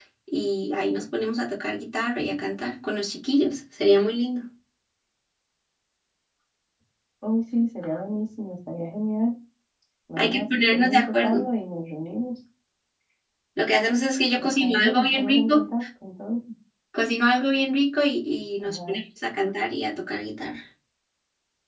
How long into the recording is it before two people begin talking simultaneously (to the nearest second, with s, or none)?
10 s